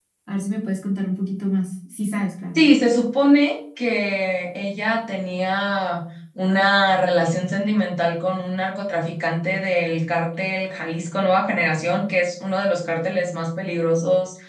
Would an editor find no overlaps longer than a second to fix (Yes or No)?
Yes